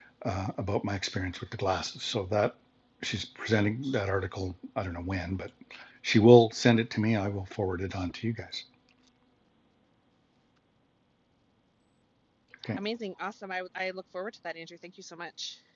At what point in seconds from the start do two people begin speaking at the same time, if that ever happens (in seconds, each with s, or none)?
none